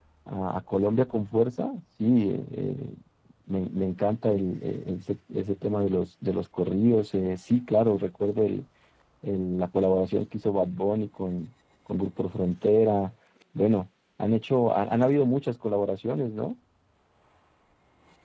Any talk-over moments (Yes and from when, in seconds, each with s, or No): No